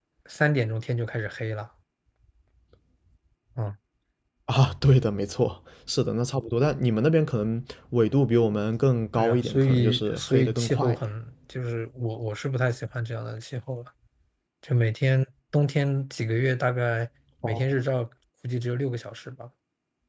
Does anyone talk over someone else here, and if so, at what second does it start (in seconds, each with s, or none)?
9.1 s